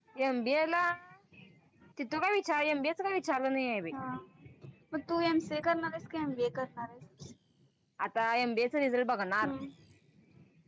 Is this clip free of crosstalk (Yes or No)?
Yes